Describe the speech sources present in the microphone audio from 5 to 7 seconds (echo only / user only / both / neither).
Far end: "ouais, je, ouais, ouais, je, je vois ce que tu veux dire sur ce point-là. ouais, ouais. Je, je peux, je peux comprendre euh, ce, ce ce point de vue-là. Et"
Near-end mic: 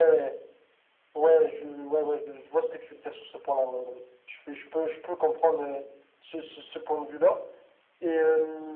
echo only